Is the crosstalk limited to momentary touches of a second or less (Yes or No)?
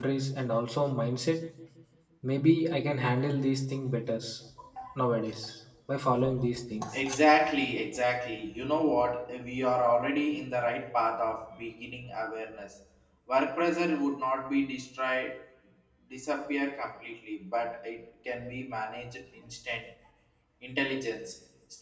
Yes